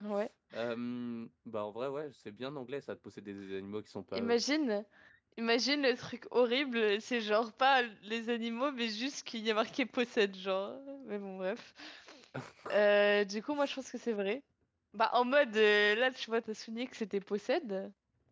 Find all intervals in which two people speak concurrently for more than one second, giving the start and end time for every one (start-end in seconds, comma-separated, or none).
none